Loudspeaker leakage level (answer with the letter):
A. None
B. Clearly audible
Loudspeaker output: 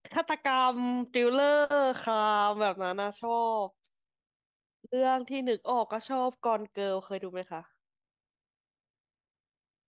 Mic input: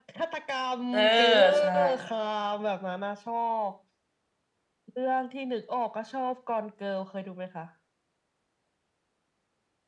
B